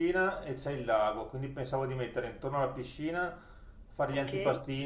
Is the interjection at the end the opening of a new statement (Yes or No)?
No